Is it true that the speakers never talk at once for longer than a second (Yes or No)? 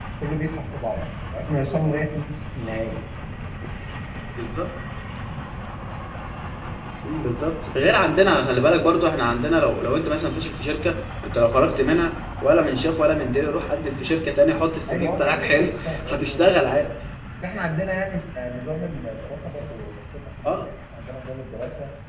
No